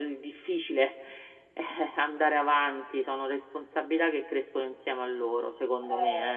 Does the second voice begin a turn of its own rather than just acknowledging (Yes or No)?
Yes